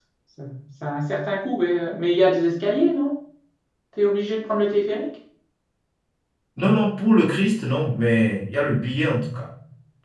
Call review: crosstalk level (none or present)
none